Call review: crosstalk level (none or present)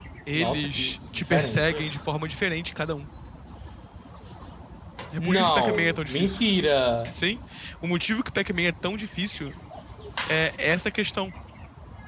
present